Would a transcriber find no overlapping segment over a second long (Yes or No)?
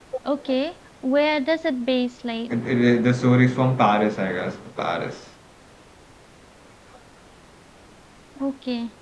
Yes